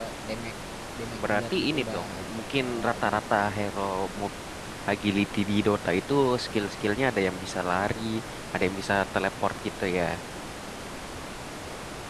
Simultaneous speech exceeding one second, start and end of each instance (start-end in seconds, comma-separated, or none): 1.3-3.6